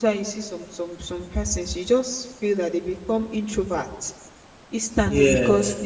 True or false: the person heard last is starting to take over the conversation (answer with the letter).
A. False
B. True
A